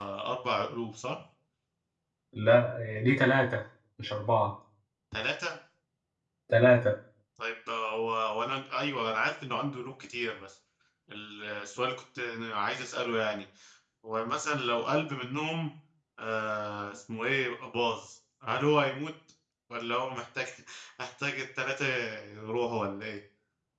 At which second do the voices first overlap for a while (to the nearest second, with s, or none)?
none